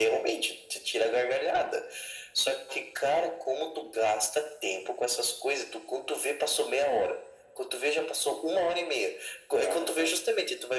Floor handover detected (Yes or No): No